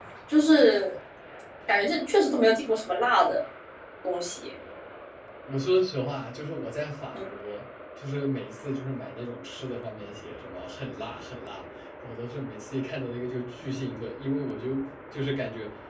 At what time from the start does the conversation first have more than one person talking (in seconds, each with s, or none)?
none